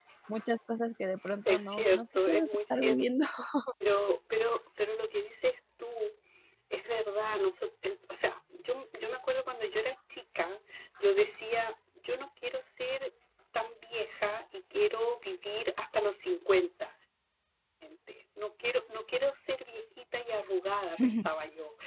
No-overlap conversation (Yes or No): No